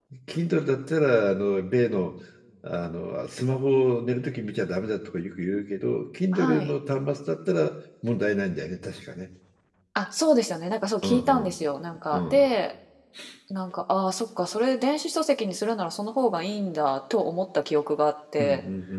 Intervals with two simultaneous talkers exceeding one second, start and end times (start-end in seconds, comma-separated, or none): none